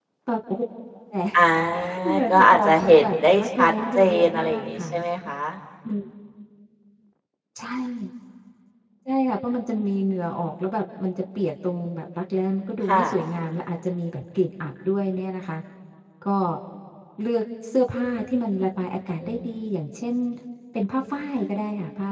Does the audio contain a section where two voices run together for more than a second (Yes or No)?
Yes